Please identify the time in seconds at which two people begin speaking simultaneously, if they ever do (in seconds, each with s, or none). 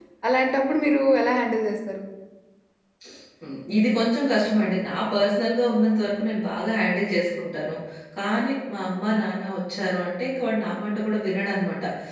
none